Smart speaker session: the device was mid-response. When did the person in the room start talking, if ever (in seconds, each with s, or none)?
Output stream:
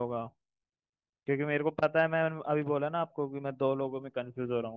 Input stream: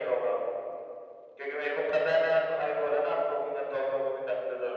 none